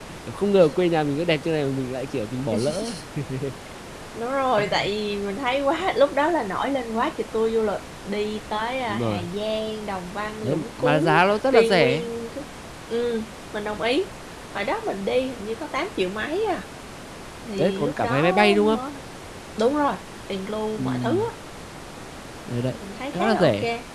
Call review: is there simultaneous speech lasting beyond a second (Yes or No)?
Yes